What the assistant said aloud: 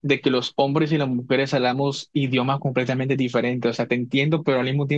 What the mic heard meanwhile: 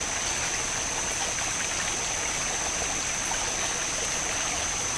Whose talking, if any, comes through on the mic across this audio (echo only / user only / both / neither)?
neither